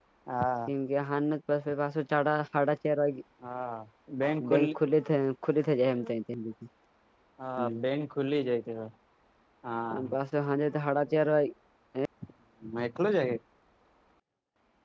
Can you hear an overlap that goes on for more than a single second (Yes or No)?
No